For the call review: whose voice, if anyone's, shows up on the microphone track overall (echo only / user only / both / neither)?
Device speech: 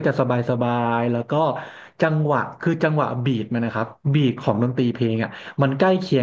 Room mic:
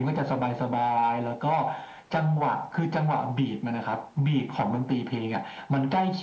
echo only